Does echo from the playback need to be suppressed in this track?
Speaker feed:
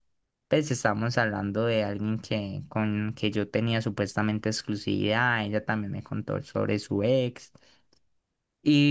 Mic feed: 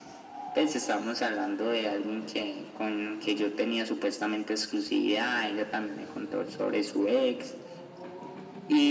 Yes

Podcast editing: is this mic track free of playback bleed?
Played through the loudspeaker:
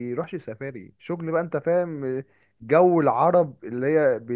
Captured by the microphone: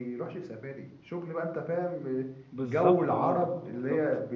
No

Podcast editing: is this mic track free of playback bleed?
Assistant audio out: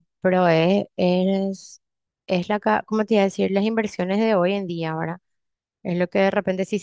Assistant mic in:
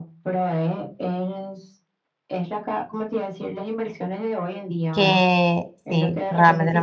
No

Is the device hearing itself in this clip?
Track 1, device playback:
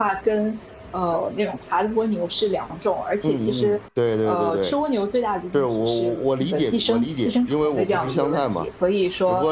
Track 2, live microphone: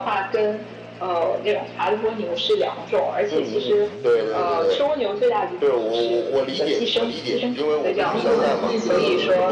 Yes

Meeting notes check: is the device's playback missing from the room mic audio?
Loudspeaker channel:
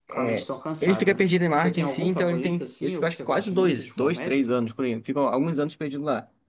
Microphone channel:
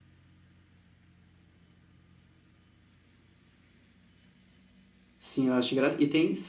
Yes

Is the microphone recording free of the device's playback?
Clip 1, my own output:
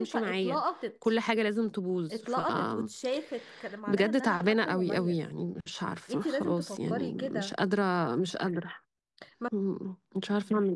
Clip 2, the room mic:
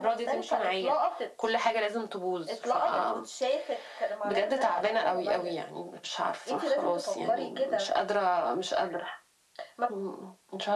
No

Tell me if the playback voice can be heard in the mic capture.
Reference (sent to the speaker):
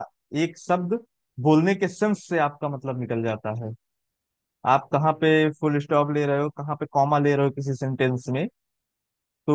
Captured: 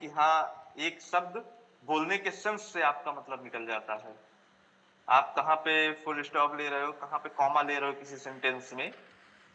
Yes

